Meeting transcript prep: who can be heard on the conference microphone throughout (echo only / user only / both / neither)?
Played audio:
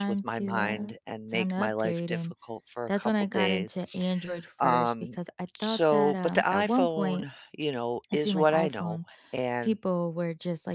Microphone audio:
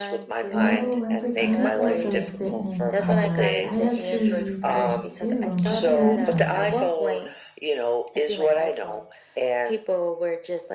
both